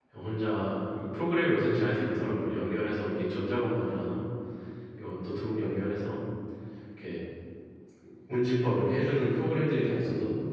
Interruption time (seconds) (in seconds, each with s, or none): none